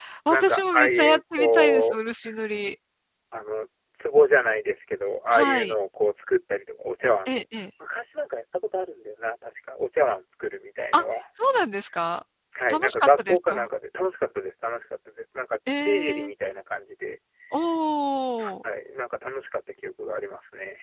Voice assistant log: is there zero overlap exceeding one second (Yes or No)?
No